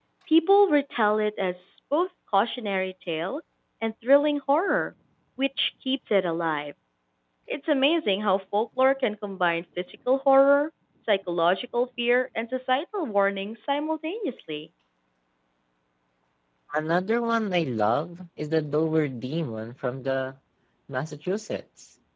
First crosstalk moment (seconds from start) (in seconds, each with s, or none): none